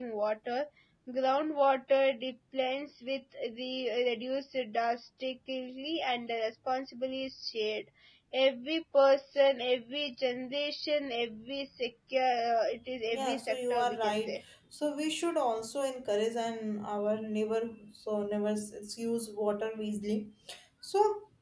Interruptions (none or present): present